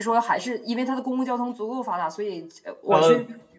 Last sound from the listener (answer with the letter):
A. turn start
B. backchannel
B